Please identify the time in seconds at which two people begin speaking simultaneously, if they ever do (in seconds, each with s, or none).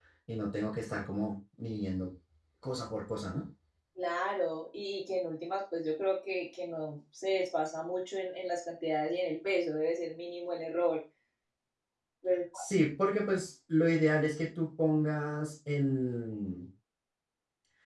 none